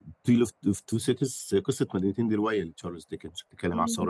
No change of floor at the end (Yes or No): Yes